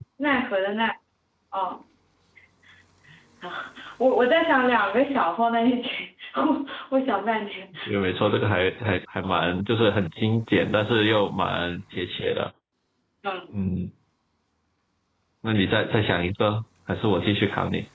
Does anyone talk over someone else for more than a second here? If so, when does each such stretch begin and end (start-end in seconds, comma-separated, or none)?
none